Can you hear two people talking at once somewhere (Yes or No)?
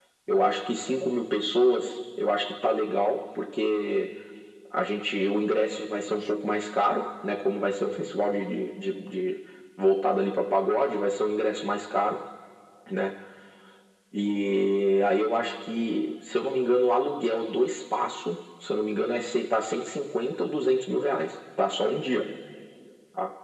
No